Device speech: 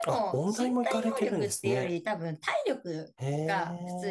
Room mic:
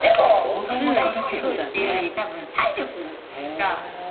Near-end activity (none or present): present